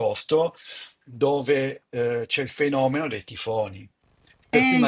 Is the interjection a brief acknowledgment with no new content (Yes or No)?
Yes